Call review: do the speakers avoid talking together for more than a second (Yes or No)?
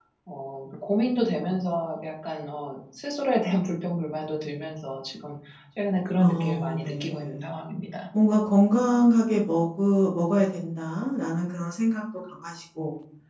No